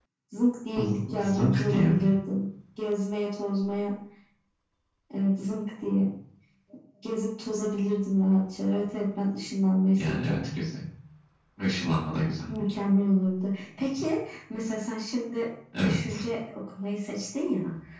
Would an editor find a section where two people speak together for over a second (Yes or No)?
Yes